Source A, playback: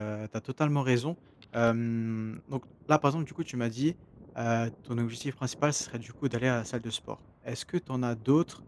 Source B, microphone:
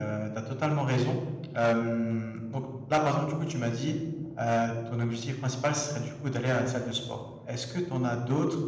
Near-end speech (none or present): none